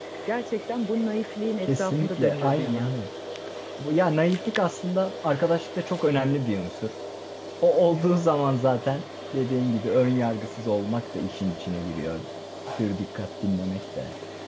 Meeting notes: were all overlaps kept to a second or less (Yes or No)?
No